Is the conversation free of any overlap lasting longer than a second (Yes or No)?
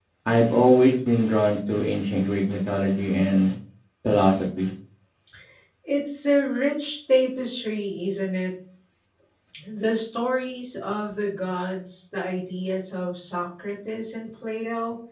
Yes